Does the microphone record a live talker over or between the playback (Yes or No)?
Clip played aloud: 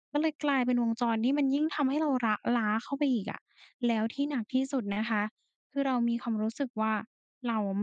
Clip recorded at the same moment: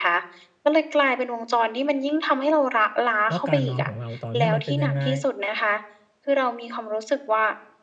Yes